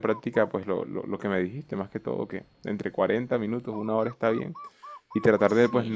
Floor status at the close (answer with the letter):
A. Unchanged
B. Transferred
A